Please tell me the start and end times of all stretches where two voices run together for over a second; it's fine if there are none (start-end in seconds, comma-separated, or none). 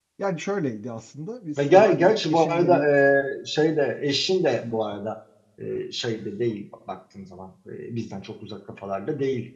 1.6-2.9